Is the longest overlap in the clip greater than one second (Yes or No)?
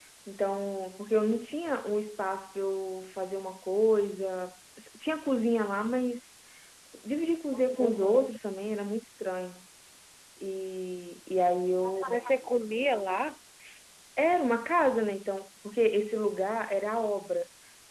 No